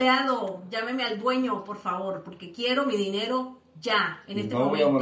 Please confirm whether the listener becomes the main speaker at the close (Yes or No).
Yes